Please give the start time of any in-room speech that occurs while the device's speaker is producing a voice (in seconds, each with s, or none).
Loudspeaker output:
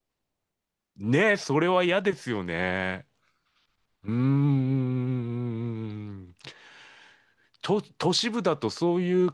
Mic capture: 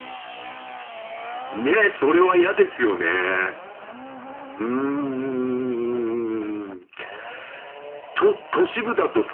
none